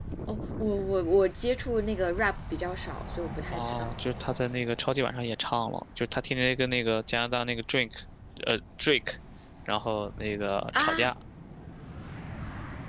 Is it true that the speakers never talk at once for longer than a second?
Yes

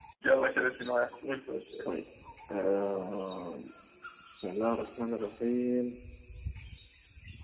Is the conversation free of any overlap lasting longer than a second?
Yes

